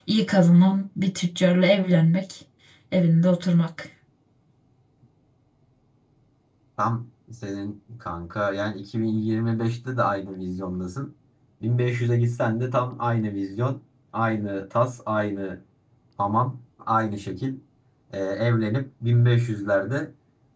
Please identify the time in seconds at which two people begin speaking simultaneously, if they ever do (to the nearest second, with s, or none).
none